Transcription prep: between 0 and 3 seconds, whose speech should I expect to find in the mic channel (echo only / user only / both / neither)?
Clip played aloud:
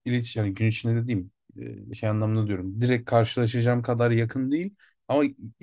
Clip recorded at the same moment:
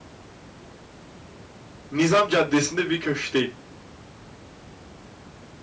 user only